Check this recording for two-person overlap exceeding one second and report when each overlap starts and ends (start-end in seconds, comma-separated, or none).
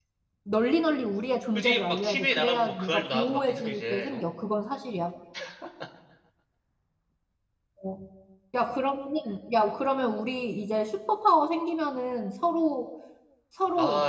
1.6-4.3